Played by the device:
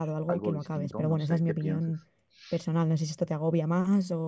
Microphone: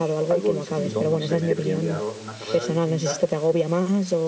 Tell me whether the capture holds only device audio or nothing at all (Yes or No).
No